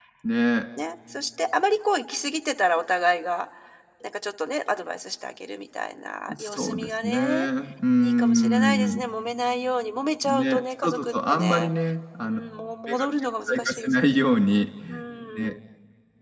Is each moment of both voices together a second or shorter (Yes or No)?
No